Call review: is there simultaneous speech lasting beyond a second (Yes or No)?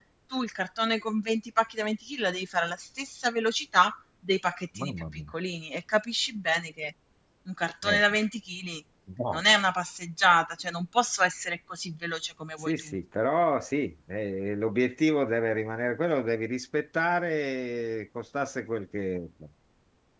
No